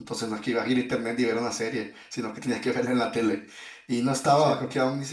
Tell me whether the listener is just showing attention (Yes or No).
Yes